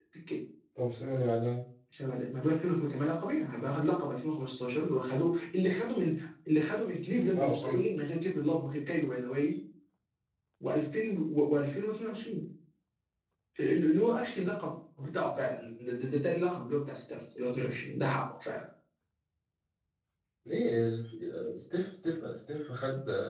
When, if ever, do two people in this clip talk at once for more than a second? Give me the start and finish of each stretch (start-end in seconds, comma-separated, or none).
none